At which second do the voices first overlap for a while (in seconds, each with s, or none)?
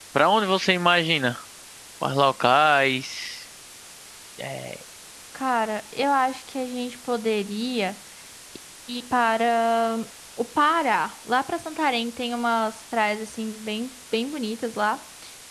none